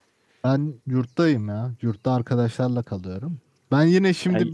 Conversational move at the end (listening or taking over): listening